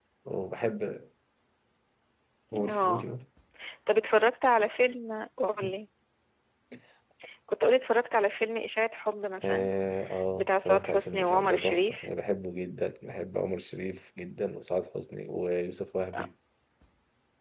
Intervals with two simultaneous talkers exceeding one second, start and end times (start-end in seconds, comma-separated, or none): 10.4-12.1